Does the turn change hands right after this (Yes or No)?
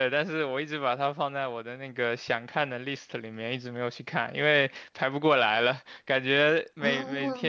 No